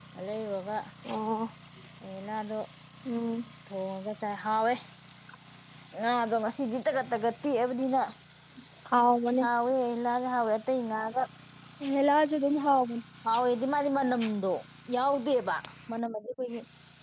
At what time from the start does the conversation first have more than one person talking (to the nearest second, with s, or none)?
none